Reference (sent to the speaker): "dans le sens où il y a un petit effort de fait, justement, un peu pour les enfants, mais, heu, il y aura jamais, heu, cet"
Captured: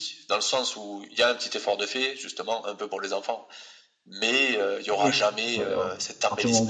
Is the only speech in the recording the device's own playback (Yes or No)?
No